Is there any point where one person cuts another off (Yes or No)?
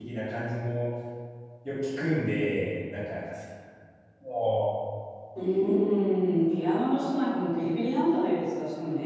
No